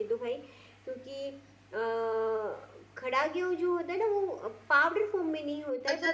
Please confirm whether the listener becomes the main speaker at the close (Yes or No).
Yes